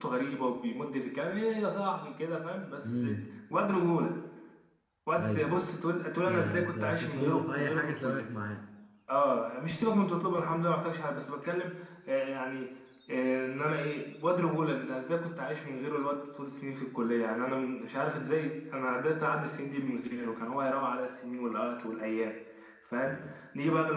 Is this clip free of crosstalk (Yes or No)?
No